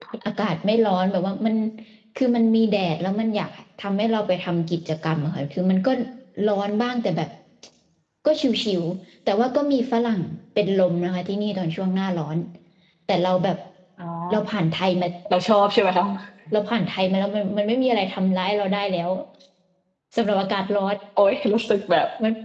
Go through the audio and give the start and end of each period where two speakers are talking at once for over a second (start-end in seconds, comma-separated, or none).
none